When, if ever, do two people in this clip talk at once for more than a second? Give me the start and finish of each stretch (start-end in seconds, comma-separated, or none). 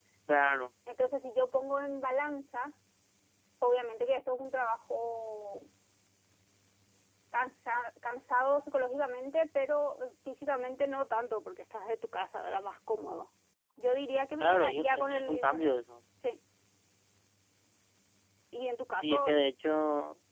14.4-15.7